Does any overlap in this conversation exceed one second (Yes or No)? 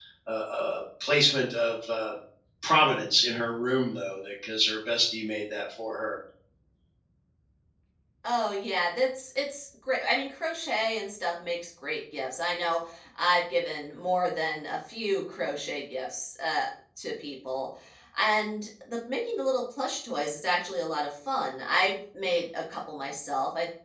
No